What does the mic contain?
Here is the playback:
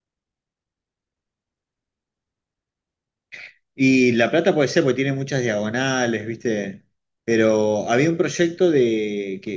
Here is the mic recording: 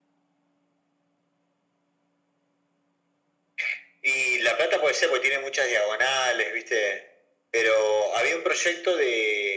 echo only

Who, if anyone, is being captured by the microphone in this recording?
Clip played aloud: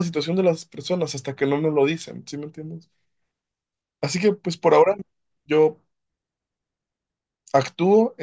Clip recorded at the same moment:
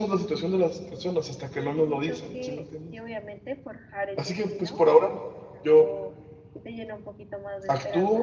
both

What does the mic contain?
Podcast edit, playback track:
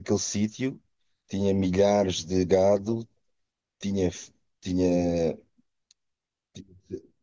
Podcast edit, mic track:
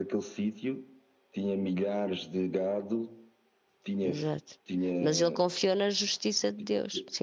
both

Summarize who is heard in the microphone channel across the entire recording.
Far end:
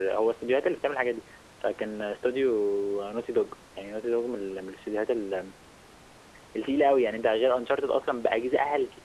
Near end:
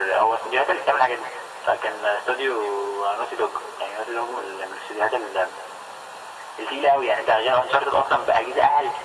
echo only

